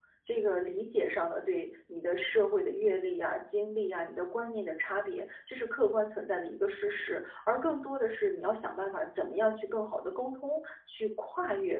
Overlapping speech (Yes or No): No